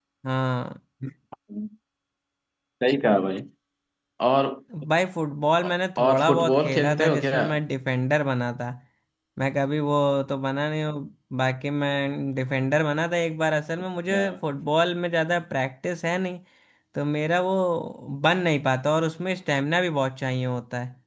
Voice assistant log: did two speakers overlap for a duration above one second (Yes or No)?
Yes